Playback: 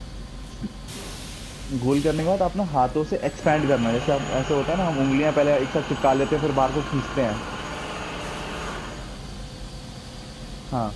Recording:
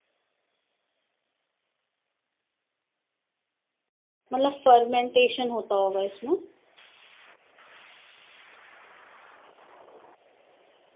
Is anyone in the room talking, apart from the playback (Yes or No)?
Yes